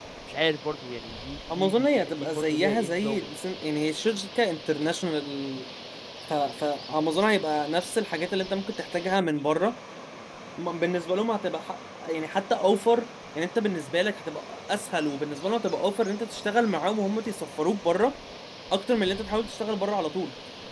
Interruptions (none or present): present